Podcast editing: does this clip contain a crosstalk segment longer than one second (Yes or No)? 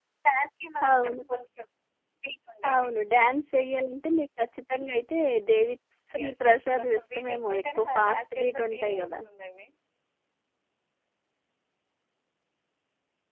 Yes